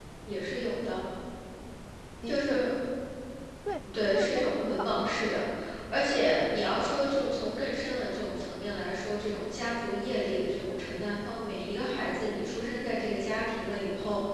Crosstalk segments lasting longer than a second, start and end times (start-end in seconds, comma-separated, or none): 4.1-5.4